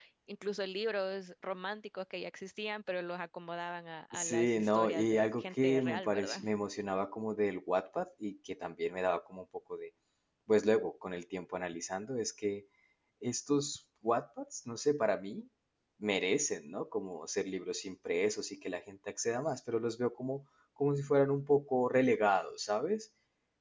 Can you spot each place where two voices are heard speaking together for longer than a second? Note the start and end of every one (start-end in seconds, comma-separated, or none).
4.1-6.4